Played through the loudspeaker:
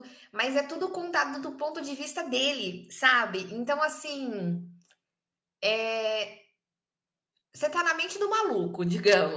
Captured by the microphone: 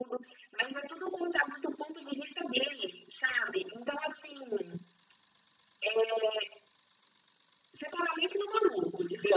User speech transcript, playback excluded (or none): none